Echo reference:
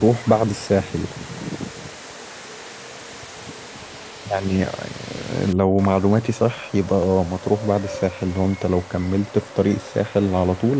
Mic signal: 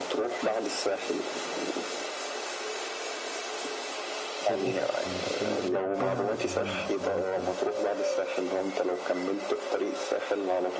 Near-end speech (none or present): present